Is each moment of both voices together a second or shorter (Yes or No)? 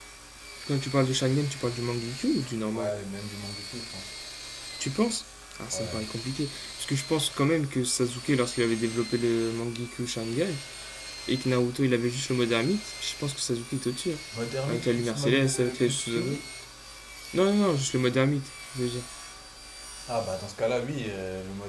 No